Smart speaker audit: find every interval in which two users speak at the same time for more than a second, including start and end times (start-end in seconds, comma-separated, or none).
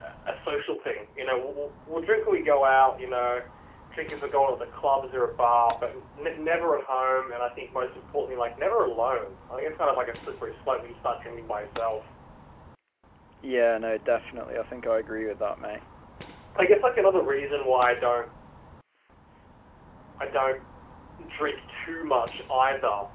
none